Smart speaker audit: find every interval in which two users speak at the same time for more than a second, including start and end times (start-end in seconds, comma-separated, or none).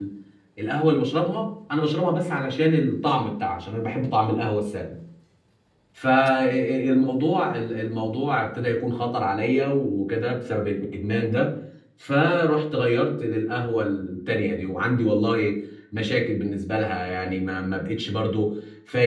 none